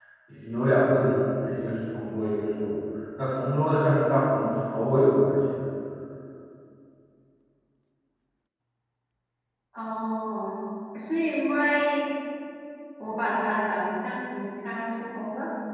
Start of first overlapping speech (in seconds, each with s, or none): none